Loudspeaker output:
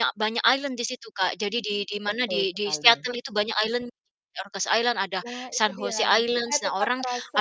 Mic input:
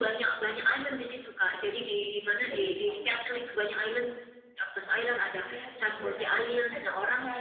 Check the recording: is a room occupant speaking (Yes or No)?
No